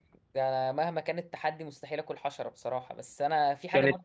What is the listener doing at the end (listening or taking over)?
listening